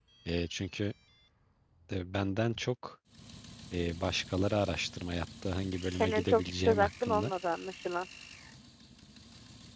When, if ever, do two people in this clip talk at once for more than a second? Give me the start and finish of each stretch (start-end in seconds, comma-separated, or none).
5.9-7.3